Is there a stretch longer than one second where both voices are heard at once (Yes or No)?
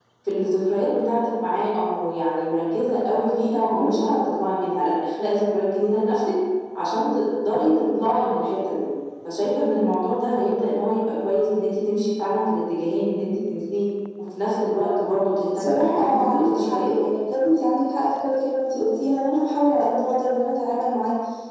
Yes